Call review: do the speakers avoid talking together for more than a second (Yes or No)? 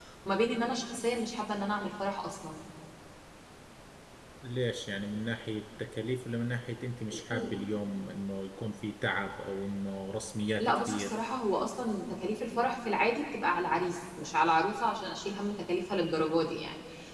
Yes